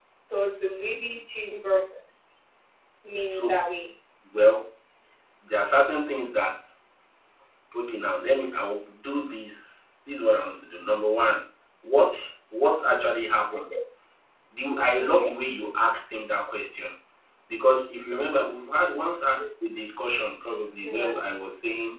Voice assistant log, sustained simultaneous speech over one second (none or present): none